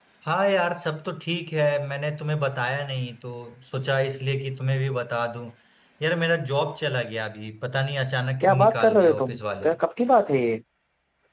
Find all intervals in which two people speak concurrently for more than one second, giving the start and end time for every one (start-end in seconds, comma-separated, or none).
8.4-9.7